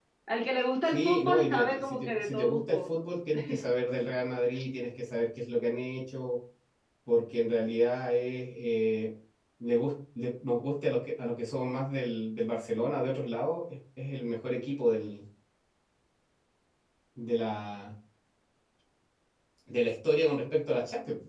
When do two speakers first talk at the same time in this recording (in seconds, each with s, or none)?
0.8 s